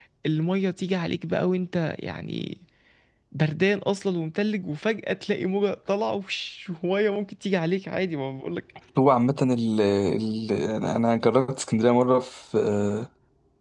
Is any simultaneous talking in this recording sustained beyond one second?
No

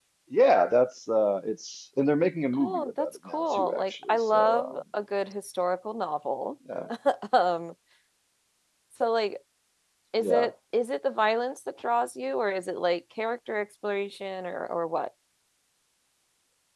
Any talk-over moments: Yes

